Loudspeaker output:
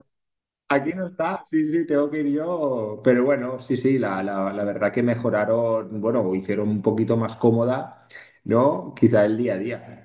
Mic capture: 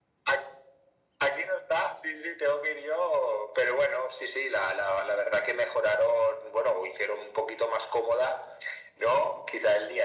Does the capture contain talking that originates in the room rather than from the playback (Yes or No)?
No